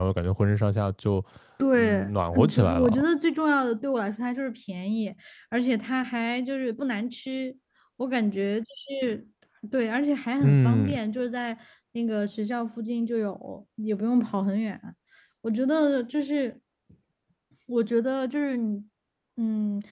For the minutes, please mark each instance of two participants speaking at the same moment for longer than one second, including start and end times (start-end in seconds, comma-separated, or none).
1.7-3.0